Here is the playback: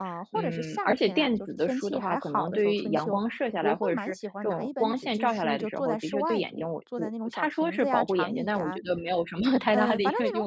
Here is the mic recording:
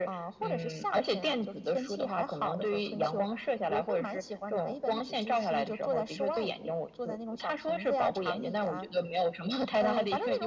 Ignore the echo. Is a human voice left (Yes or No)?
No